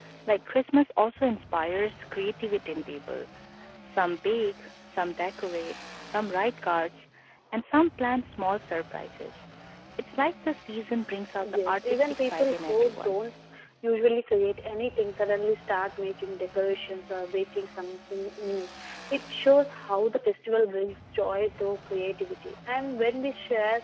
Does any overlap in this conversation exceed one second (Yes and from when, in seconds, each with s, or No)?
Yes, from 11.4 s